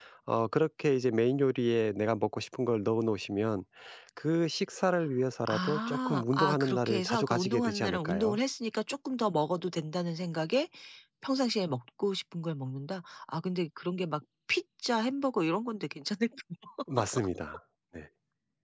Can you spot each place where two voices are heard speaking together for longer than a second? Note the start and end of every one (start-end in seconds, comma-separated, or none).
5.5-8.4